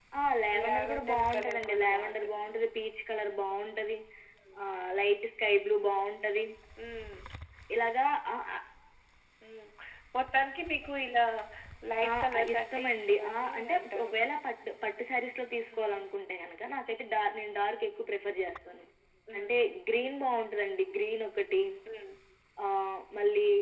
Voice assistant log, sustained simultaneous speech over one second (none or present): present